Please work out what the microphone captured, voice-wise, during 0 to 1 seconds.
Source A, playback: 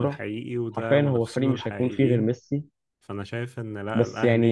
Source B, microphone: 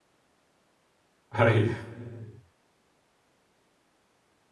neither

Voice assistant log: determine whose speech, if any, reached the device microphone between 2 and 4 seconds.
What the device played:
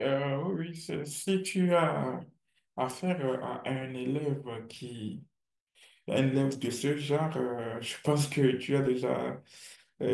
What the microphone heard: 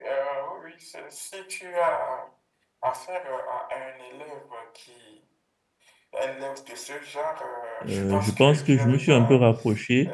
echo only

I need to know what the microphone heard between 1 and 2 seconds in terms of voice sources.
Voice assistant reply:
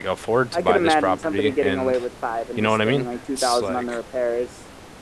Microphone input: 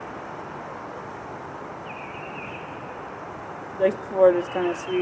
neither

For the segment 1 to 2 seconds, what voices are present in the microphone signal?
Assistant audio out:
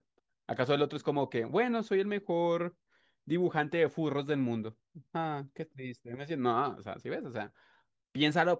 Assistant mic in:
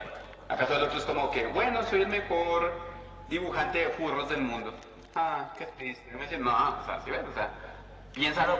echo only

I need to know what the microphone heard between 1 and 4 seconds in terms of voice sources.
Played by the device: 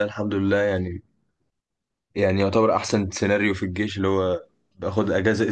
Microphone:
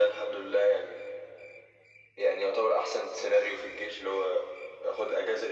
echo only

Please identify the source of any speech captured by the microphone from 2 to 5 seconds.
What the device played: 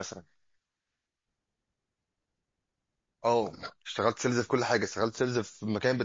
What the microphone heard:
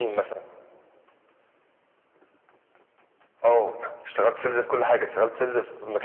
echo only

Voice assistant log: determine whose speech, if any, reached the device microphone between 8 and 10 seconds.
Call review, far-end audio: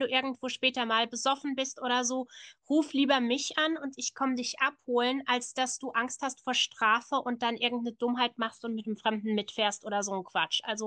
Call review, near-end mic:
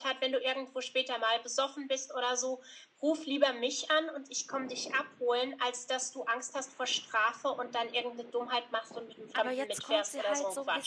both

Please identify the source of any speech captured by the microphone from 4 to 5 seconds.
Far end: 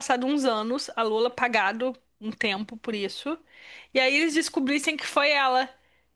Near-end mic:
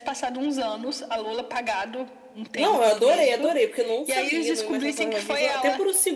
both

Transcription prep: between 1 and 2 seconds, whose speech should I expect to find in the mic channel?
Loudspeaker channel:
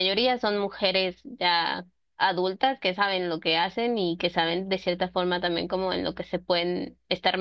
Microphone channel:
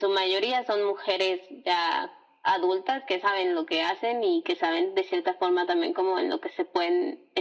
echo only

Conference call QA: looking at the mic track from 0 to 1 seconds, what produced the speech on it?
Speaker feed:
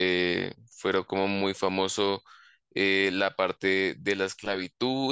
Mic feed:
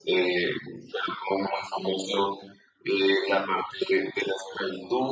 echo only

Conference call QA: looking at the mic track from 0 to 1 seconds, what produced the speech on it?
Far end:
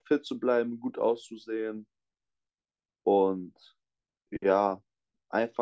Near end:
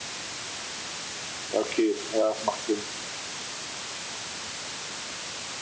neither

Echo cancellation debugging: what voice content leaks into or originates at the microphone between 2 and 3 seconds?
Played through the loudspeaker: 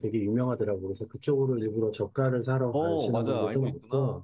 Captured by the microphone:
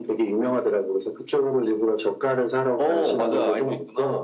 echo only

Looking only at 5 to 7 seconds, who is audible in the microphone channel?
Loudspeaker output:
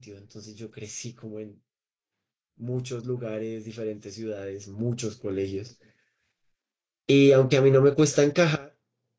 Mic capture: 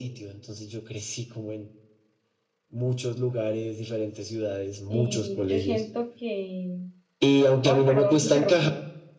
both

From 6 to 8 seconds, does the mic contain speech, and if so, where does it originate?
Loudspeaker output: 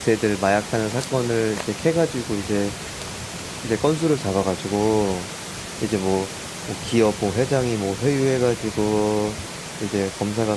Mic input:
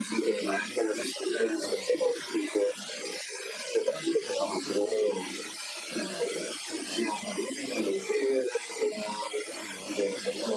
both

